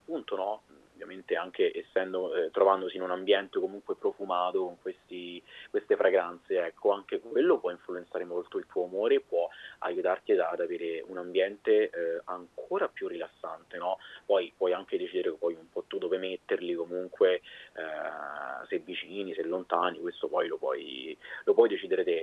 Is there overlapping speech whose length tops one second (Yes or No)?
No